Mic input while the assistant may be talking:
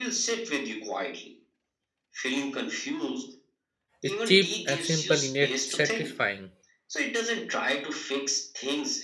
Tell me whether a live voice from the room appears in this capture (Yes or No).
Yes